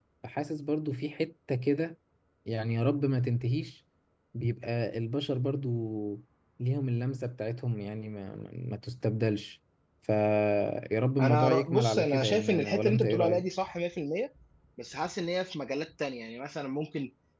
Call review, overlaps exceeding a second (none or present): present